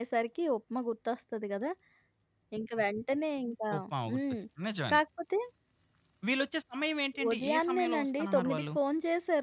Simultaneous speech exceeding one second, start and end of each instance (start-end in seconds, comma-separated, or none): 7.3-8.6